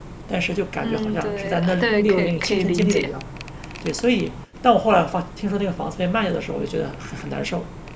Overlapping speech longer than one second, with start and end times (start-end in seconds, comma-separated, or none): 0.8-3.1